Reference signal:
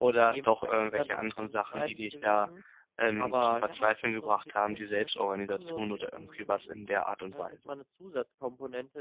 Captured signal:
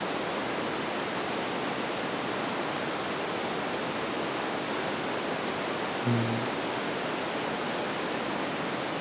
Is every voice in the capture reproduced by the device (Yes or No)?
No